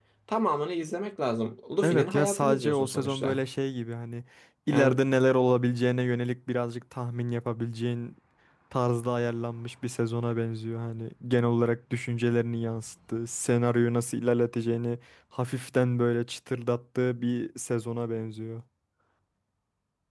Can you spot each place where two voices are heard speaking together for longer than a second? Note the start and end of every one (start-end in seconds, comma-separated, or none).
1.8-3.4